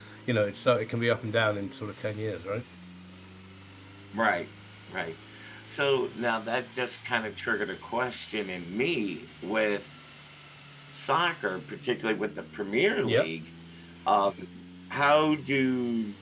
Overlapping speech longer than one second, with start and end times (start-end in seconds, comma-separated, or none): none